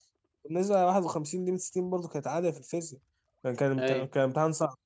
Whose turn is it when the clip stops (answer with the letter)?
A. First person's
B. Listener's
A